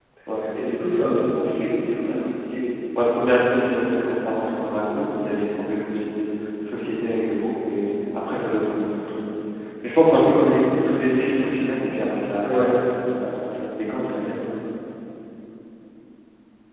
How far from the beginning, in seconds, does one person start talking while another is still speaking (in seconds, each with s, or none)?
none